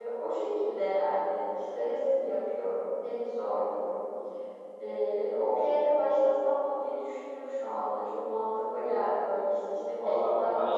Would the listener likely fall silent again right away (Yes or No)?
No